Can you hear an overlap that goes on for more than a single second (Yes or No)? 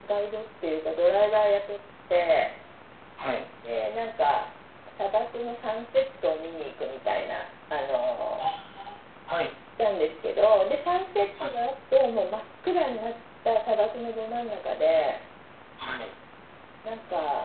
No